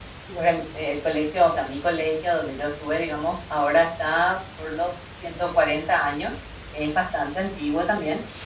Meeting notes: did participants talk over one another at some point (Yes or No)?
No